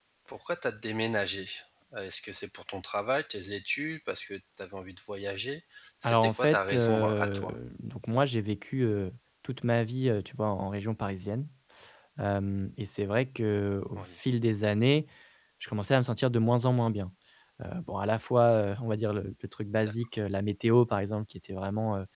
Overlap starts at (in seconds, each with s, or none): 6.0 s